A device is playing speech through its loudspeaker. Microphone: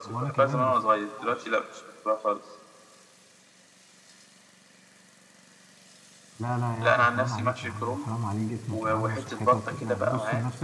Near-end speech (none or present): present